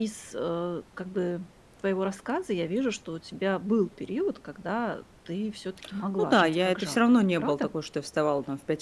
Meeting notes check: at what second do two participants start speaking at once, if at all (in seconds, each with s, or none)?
6.2 s